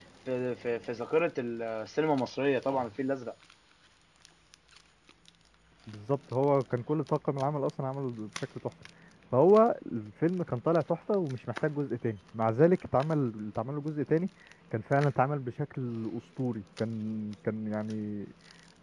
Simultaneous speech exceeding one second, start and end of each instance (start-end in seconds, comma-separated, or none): none